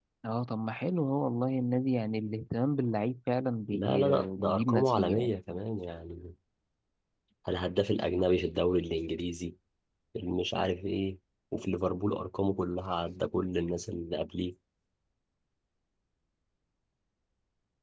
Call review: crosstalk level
present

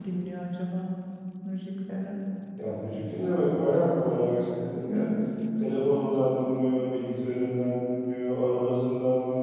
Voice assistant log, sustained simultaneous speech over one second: none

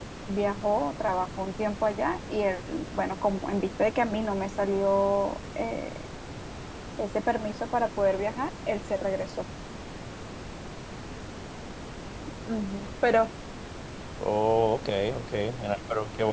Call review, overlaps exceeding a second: none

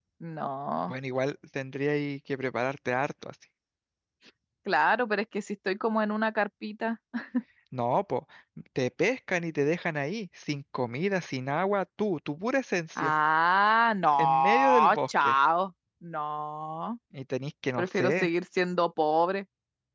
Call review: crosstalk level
present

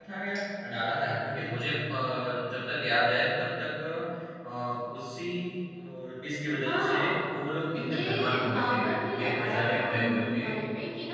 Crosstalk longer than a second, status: present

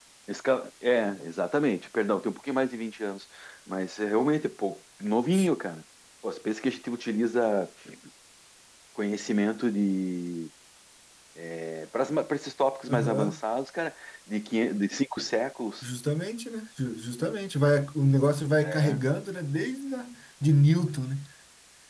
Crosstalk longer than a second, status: none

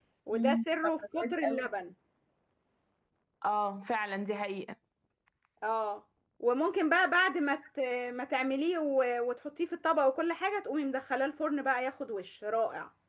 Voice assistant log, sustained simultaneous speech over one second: present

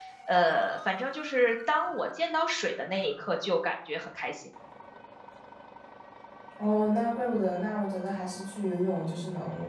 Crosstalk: none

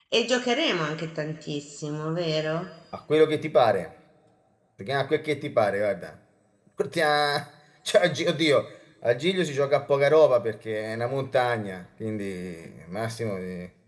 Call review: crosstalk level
none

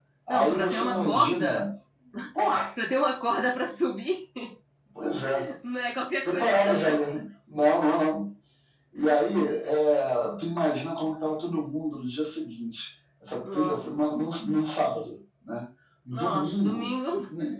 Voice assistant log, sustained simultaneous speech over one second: present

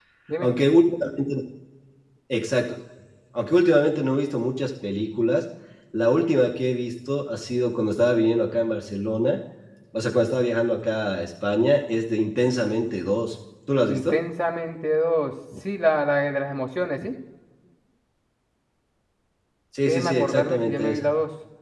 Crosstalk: present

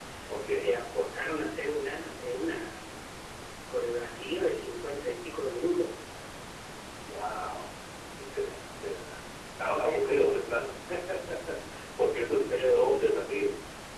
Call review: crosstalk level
present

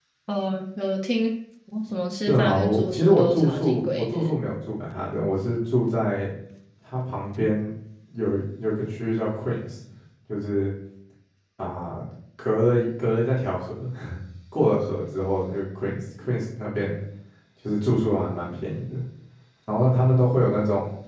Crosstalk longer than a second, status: present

